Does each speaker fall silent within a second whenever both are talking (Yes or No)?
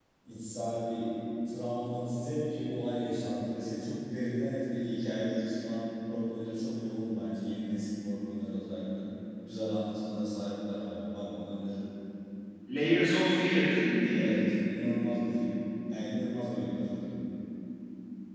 Yes